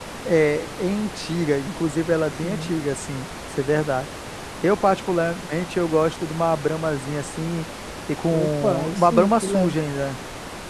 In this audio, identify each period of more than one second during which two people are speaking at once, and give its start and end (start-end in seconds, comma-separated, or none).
8.3-9.8